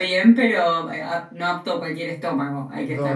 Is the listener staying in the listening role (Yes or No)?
No